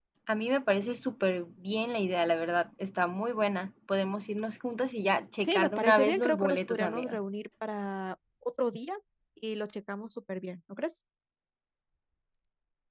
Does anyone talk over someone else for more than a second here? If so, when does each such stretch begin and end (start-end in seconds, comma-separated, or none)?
5.4-7.2